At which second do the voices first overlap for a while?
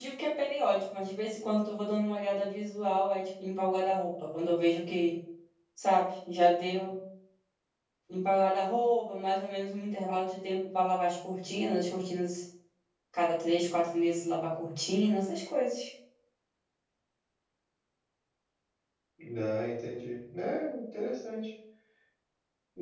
none

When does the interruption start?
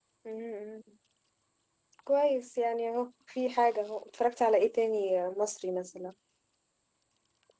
none

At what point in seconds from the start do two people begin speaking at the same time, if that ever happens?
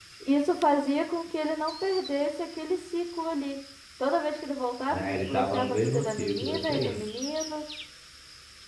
4.9 s

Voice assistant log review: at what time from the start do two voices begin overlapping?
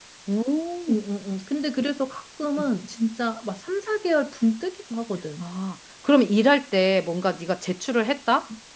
none

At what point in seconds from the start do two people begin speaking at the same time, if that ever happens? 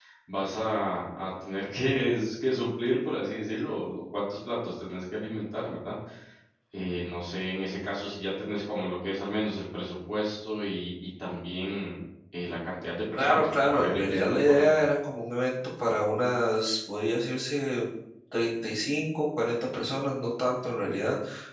13.2 s

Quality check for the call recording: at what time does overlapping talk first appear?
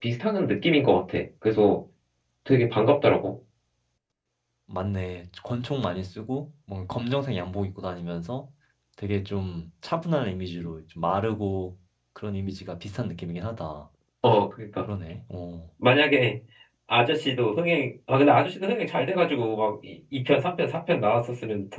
none

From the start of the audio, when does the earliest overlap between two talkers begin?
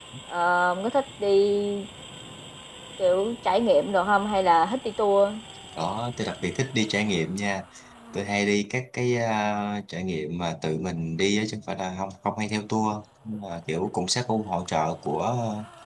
none

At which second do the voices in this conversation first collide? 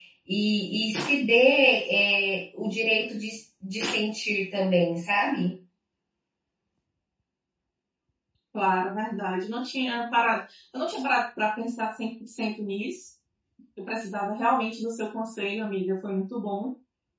none

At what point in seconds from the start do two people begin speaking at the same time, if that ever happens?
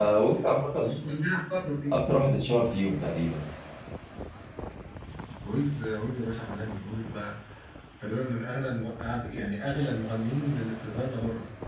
none

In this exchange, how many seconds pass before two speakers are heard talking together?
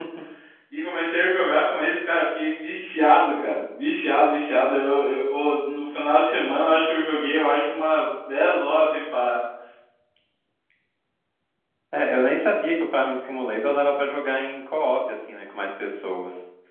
none

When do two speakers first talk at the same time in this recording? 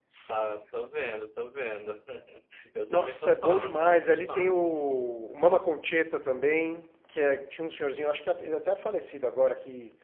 2.9 s

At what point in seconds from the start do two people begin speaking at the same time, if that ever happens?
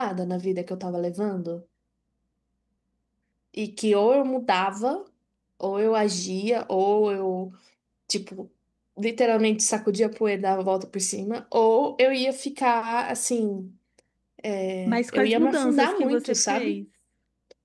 14.9 s

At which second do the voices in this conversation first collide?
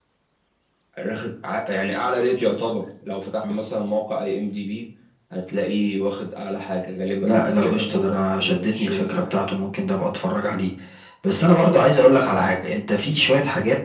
7.2 s

